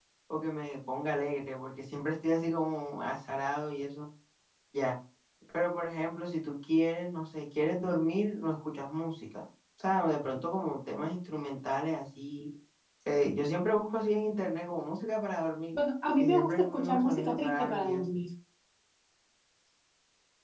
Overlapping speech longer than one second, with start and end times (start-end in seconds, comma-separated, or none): 16.2-18.1